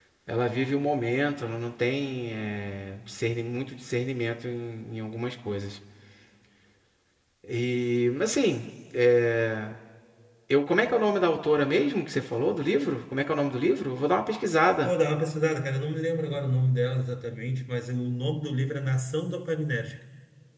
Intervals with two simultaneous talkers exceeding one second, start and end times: none

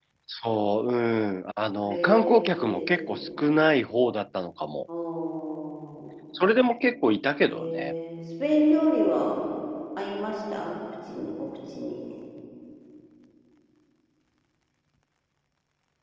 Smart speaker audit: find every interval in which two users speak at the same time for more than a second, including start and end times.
1.9-3.3

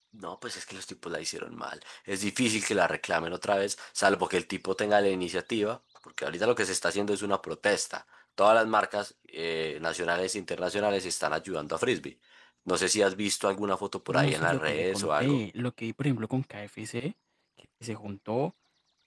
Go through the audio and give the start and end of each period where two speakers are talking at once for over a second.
14.1-15.4

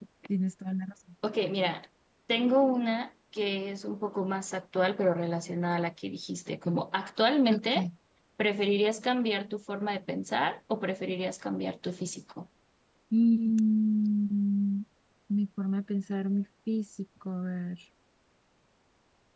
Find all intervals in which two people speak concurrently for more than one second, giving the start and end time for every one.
none

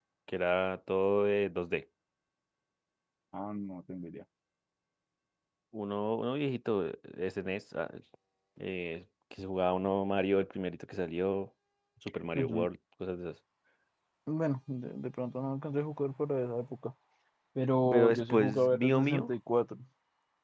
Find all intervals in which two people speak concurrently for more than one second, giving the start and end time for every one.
17.9-19.4

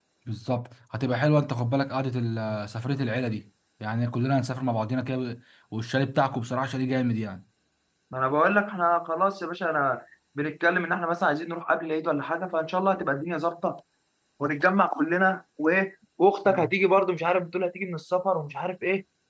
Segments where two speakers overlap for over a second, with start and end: none

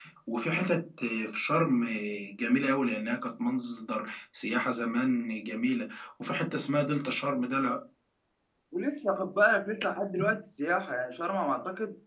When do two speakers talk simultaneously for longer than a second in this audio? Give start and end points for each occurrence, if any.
none

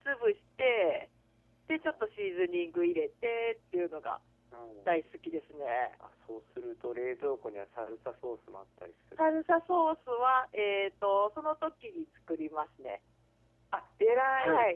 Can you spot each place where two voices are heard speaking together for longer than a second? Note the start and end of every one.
none

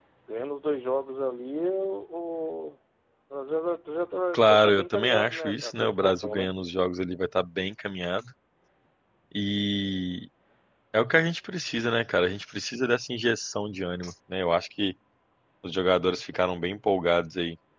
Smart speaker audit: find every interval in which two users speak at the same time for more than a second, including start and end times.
4.3-6.5

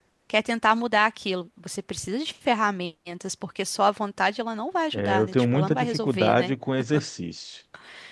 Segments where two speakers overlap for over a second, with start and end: 4.9-6.5

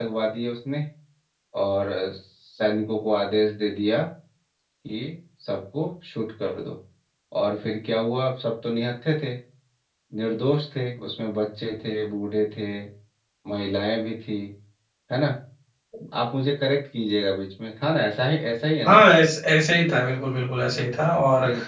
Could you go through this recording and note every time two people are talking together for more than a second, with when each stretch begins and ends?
none

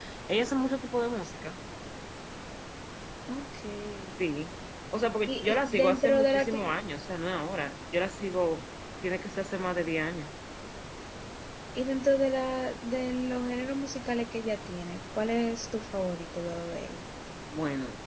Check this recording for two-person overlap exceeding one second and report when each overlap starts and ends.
5.3-6.6

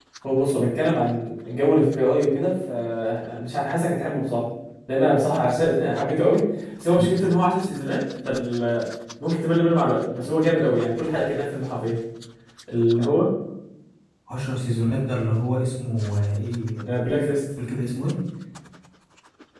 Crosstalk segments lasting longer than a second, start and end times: none

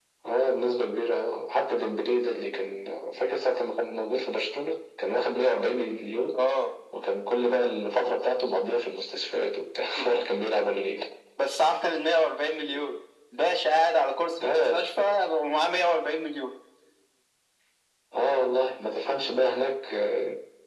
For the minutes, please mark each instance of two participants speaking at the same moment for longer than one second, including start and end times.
none

